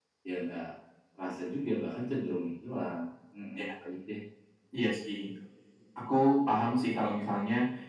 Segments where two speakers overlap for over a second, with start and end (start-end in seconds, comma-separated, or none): none